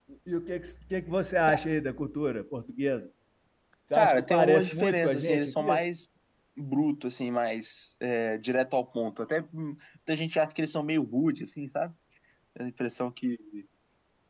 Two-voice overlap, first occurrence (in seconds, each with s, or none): 3.9 s